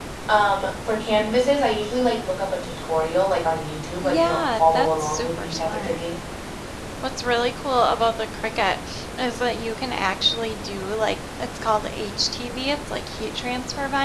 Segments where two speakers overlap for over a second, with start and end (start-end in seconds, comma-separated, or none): 4.0-6.0